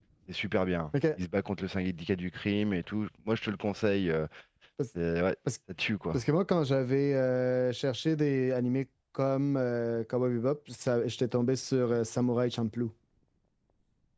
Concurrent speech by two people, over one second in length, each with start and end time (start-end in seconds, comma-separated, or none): none